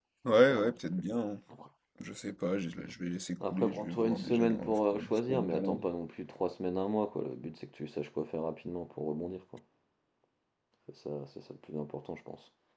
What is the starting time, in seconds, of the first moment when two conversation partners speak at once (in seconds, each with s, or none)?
3.4 s